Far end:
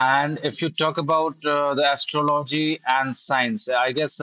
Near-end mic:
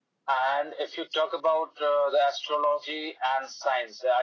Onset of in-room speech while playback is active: none

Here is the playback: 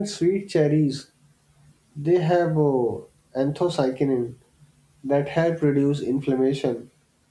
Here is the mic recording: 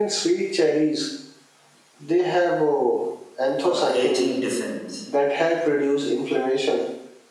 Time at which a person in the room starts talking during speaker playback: 4 s

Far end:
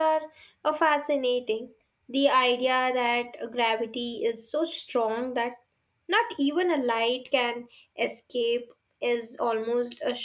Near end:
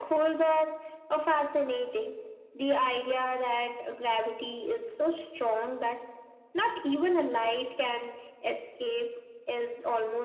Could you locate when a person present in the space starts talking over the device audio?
none

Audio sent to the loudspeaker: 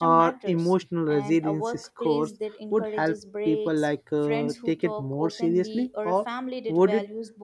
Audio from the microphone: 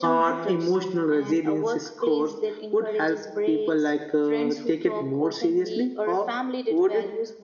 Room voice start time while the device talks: none

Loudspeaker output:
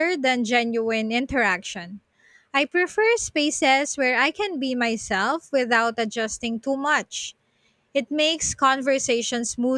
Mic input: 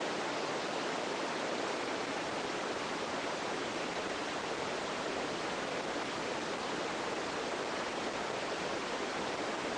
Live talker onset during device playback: none

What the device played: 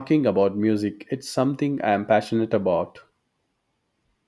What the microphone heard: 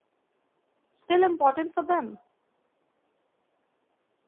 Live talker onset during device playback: 1 s

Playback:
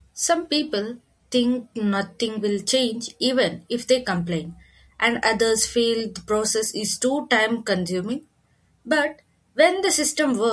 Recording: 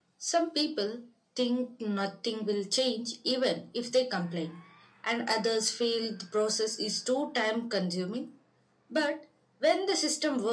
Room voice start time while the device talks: none

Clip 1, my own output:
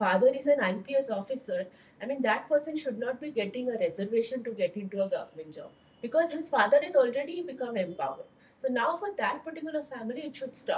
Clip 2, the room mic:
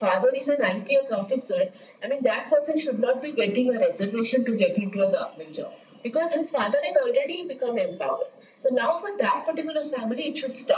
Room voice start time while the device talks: none

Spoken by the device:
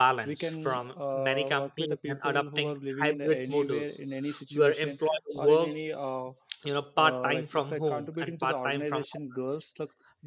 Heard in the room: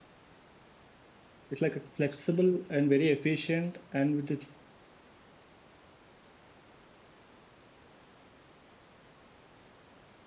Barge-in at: 2 s

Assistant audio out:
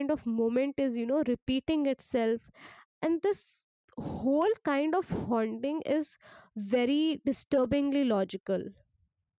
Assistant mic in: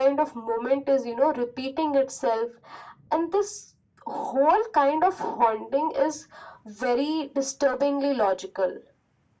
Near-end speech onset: none

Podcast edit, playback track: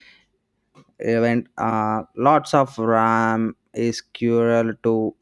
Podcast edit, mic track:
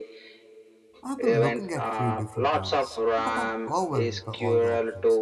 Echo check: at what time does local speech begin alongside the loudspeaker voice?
1 s

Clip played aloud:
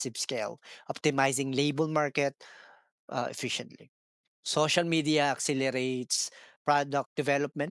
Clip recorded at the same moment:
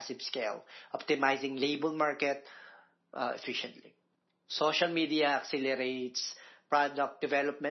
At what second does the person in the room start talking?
none

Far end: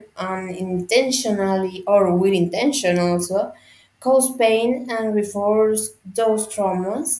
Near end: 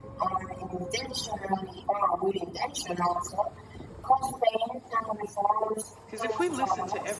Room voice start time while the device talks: 6 s

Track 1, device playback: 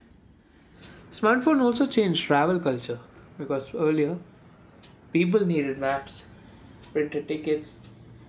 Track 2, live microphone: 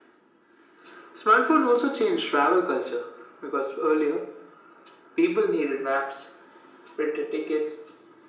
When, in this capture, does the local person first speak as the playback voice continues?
none

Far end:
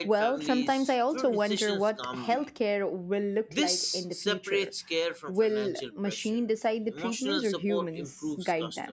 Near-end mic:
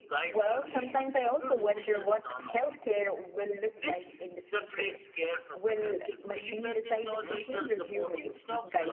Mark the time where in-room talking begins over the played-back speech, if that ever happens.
6 s

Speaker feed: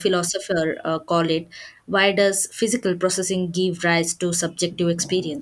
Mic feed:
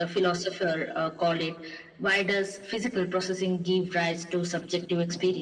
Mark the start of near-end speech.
none

